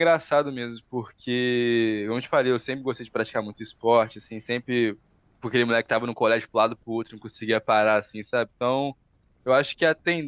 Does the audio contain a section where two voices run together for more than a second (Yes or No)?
No